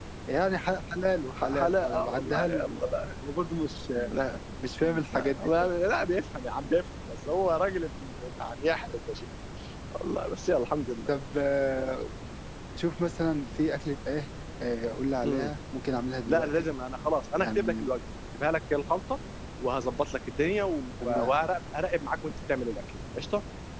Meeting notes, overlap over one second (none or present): present